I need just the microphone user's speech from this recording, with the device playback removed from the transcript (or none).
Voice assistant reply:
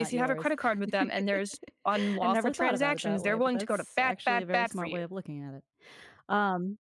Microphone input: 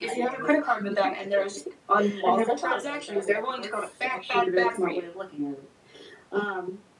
none